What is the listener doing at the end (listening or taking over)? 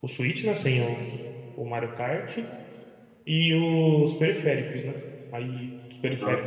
listening